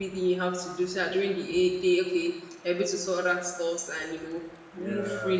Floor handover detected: Yes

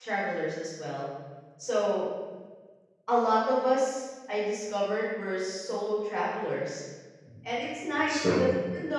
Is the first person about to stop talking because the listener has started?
No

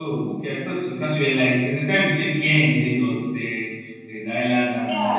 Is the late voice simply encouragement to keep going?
No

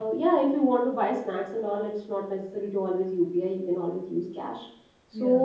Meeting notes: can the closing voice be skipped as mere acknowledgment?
Yes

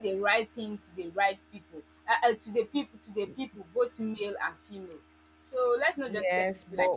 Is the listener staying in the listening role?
No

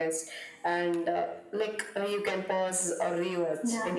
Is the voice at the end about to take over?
Yes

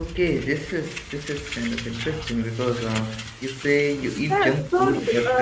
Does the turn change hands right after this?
Yes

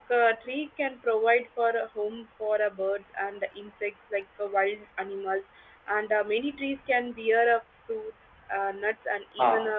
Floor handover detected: No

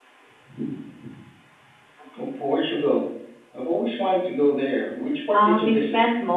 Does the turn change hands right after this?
Yes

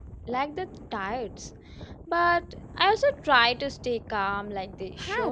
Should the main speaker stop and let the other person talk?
Yes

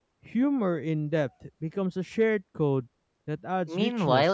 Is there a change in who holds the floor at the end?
Yes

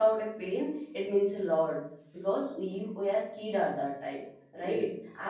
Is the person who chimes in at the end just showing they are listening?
Yes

